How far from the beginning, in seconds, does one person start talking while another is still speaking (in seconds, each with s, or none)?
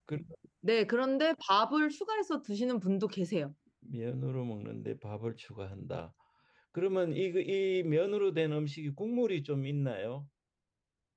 none